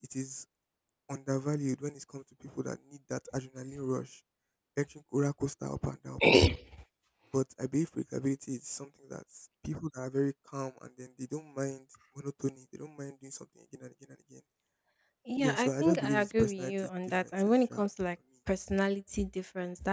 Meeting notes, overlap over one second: present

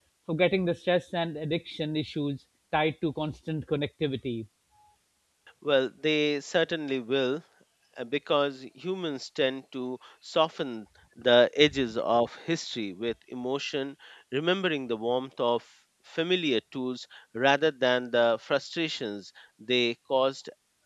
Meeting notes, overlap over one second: none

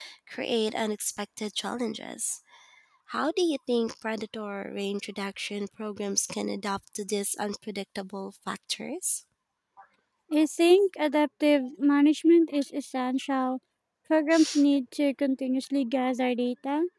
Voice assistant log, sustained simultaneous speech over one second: none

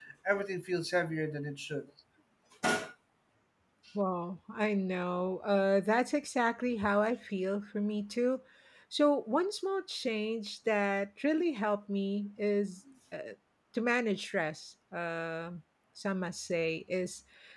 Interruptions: none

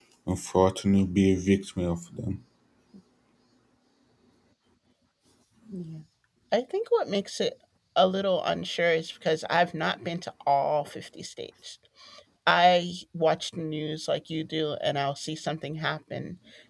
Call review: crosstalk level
none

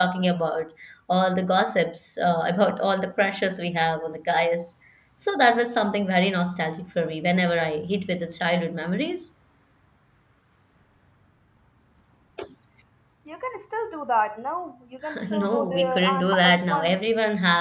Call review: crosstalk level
present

